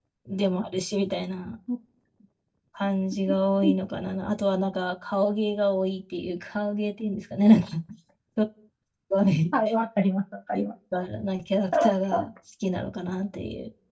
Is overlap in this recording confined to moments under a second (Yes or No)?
Yes